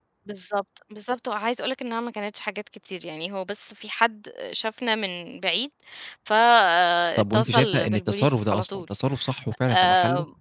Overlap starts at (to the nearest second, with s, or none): 7 s